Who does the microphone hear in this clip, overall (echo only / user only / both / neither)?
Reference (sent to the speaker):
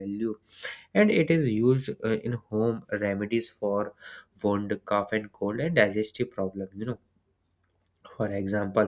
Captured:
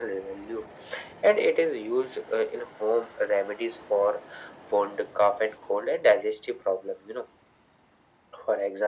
echo only